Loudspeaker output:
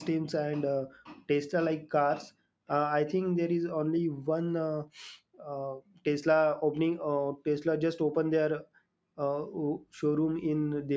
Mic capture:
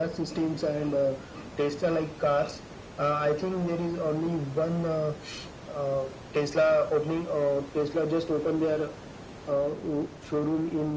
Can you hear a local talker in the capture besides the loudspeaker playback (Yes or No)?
No